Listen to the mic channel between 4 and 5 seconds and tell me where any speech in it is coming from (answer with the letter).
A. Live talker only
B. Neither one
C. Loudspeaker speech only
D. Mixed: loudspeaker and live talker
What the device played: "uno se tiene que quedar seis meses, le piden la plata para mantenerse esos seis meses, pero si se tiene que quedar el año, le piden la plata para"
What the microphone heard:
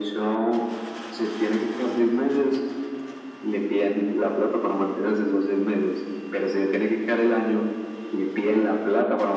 C